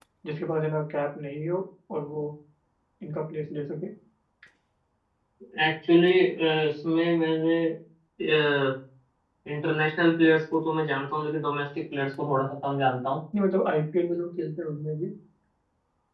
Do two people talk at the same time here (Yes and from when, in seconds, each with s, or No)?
No